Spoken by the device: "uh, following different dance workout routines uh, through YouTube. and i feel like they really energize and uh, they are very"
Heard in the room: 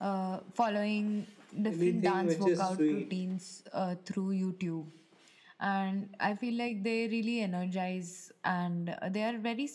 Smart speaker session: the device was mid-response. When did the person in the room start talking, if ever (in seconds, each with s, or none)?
1.7 s